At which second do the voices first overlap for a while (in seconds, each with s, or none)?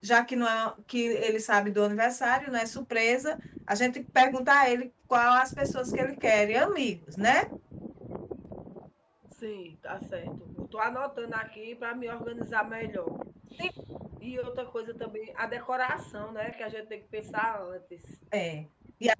none